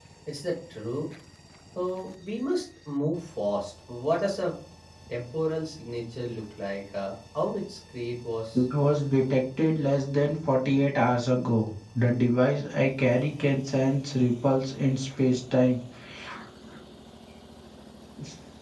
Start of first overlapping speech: none

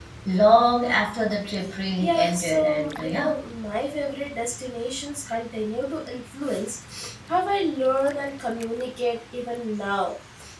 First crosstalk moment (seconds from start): 2.0 s

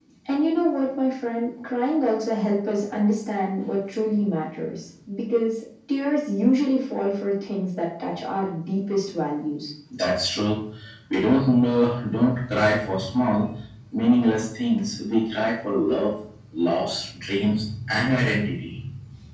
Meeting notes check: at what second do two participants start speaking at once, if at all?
none

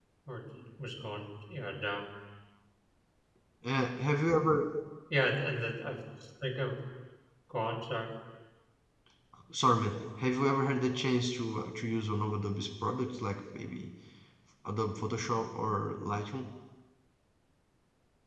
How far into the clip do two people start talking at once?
none

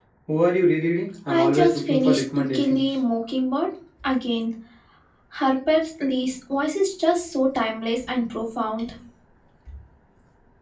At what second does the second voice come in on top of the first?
1.3 s

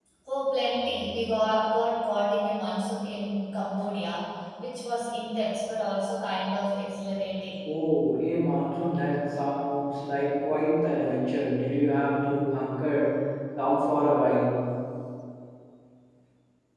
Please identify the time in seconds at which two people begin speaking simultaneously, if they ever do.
none

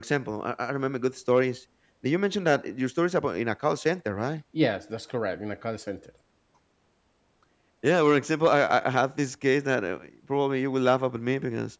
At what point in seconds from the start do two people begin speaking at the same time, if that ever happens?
none

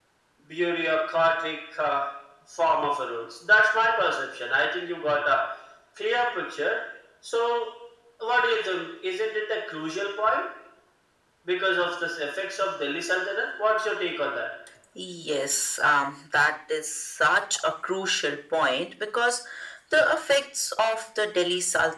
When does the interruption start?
none

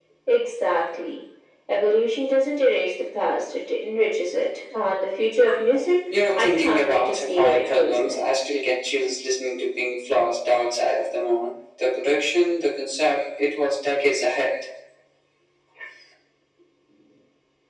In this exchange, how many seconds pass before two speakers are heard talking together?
6.1 s

